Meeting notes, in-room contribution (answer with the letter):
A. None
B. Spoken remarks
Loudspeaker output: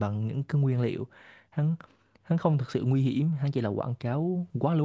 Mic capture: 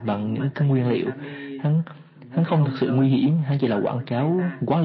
B